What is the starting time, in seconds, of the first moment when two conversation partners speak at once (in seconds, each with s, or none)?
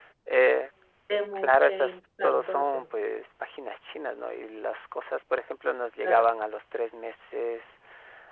1.3 s